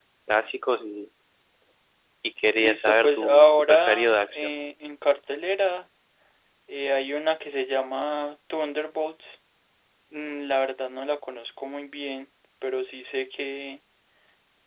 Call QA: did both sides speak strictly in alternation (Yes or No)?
No